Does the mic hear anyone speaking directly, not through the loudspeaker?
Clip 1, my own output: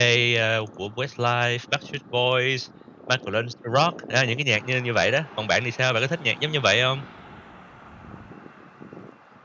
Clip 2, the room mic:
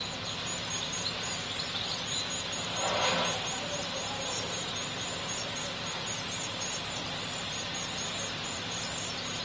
No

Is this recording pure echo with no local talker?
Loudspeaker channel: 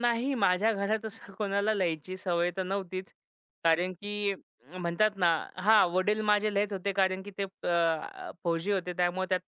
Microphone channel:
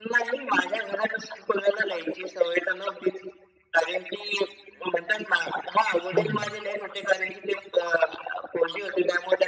No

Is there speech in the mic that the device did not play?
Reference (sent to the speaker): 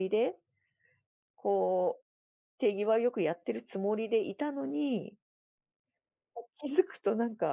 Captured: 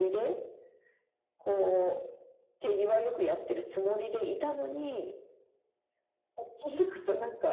No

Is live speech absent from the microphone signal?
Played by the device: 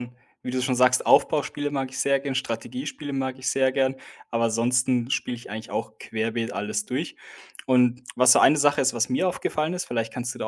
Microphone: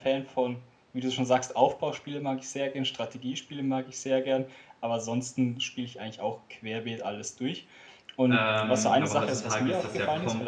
No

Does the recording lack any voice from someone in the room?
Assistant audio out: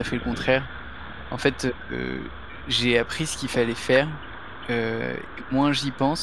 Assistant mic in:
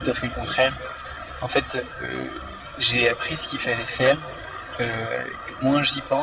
Yes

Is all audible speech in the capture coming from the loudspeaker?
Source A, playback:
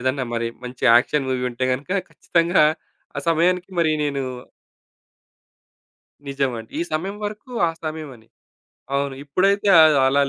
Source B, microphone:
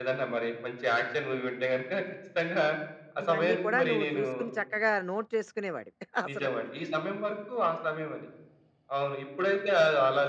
No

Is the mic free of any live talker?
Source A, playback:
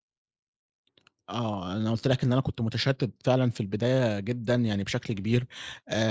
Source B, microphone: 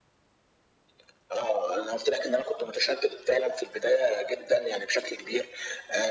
Yes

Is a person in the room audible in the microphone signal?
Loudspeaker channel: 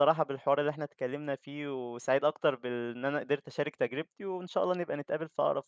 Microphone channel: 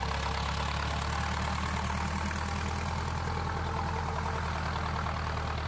No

